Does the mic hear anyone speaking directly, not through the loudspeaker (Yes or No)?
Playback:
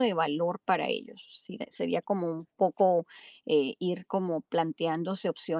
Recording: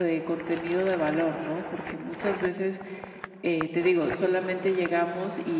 Yes